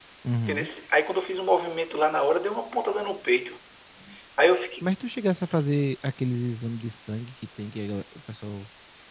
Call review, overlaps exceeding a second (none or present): none